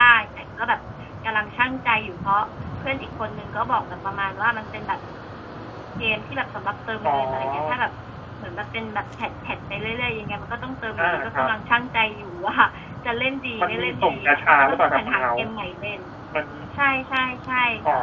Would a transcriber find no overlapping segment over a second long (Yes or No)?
No